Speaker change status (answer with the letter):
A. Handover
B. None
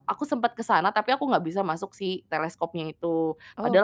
B